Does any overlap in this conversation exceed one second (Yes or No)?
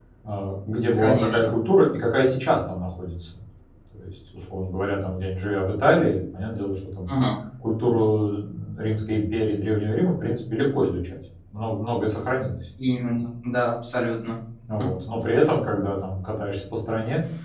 No